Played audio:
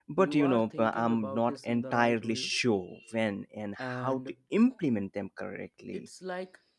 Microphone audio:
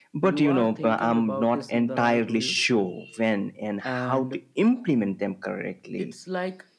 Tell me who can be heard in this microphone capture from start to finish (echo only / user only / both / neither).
echo only